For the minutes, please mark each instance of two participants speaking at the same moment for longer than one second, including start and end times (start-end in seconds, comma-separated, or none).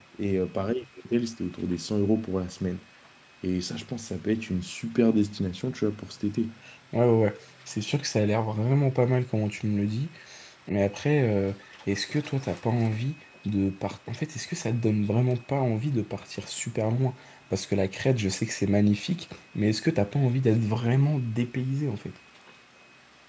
none